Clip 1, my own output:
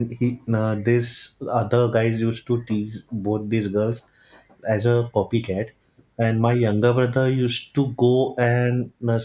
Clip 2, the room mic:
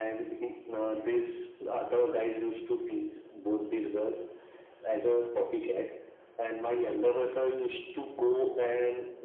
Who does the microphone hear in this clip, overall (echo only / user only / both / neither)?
echo only